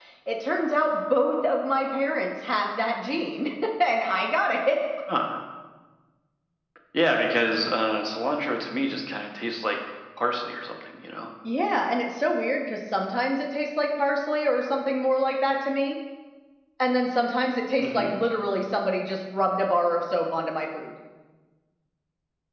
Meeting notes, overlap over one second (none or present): none